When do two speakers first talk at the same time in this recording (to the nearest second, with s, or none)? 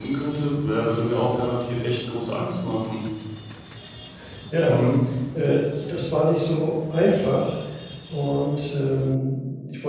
none